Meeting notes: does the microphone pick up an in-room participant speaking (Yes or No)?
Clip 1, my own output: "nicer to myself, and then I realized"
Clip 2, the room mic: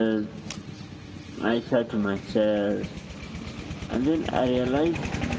No